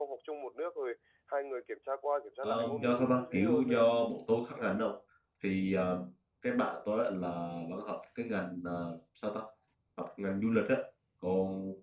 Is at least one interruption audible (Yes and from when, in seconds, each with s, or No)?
Yes, from 2.4 s